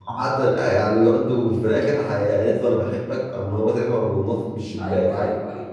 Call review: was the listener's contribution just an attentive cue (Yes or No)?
No